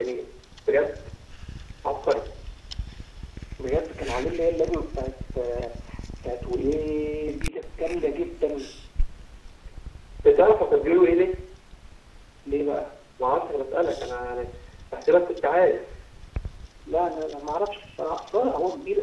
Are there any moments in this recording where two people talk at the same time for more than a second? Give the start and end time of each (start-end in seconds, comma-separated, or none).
none